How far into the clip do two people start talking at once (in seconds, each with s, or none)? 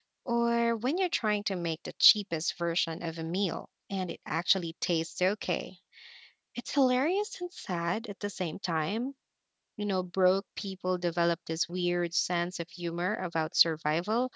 none